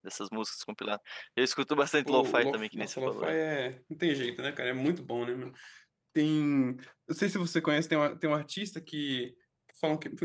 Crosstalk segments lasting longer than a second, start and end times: 2.0-3.3

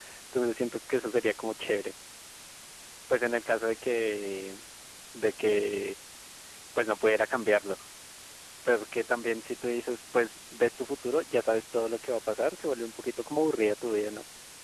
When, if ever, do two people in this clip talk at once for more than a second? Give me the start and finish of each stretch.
none

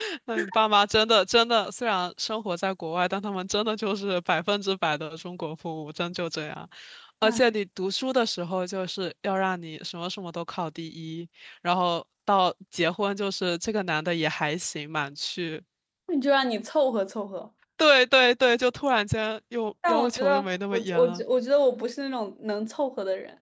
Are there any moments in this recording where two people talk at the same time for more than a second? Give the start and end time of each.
19.9-21.2

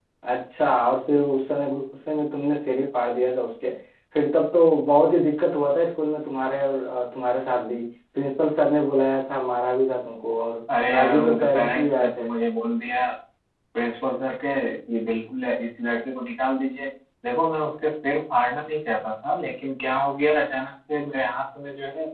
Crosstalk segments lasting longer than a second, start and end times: 10.9-12.3

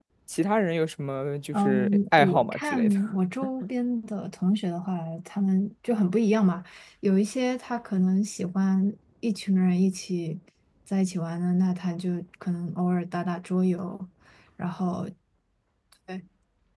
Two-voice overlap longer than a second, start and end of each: 1.5-2.9

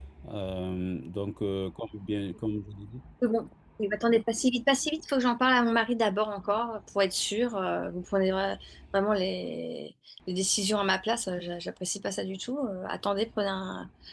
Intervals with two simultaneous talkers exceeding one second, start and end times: none

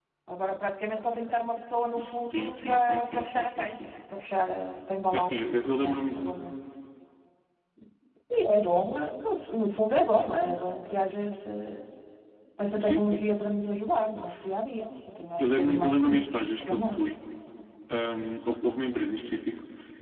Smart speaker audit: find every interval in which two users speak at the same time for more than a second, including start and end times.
2.0-4.0, 15.4-17.1

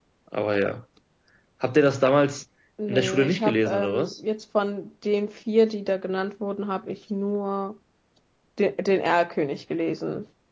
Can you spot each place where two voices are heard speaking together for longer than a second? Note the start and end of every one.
2.9-4.1

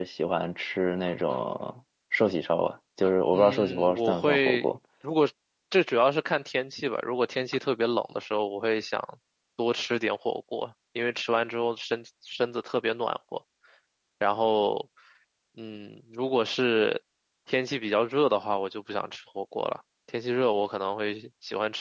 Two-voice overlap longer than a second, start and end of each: 3.3-4.7

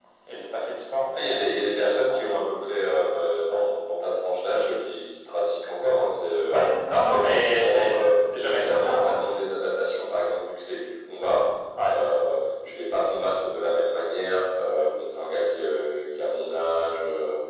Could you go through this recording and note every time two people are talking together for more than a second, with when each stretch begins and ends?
6.5-9.2

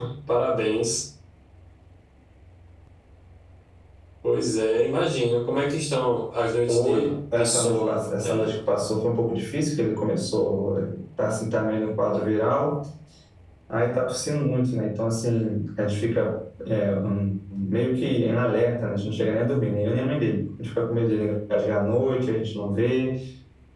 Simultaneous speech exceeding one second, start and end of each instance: 6.7-8.5

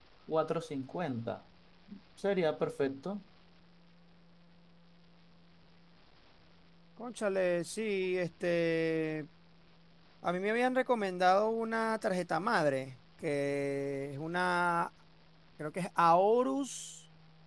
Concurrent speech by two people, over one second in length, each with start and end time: none

